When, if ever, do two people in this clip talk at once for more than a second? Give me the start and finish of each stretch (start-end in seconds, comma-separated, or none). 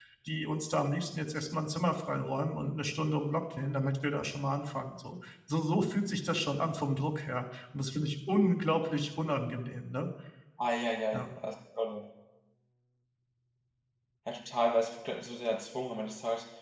none